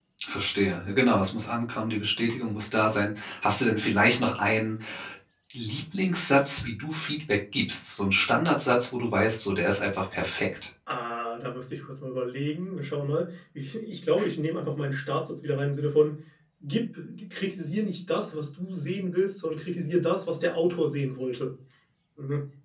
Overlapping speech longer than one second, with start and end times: none

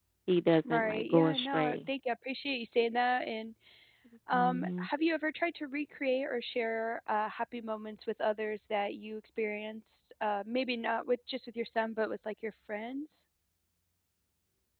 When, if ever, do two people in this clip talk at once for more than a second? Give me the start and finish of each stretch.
0.6-1.9

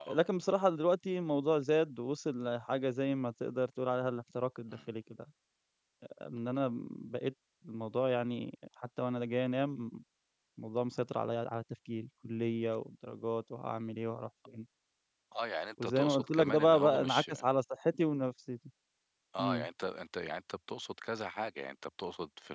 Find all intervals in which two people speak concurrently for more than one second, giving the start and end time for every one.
15.8-17.3

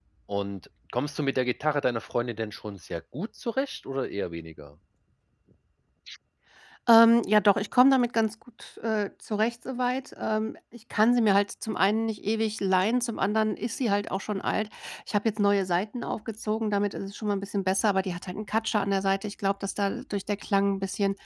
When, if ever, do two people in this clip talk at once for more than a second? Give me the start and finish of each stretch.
none

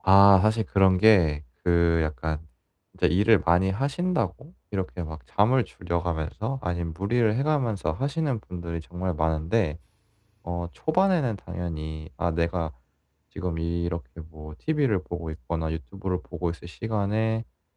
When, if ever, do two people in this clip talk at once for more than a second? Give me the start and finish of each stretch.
none

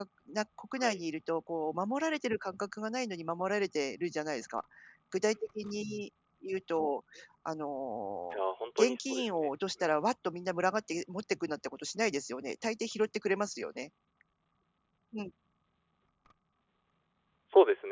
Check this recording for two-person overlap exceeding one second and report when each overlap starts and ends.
8.8-10.1

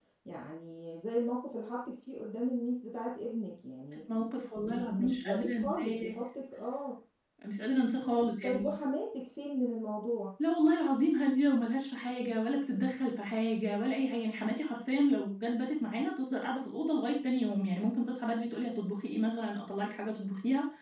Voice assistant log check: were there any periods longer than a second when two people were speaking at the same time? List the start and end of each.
4.6-6.2

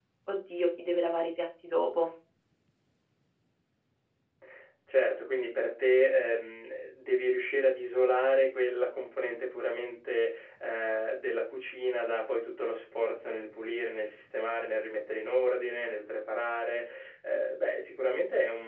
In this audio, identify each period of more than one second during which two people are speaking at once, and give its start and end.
none

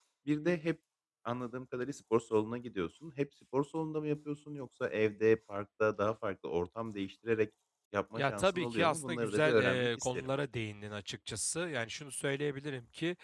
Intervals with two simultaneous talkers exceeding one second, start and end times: 8.1-10.3

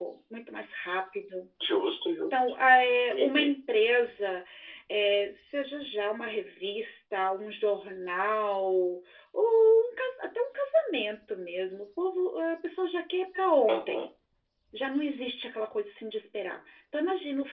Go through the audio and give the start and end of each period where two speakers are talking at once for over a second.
none

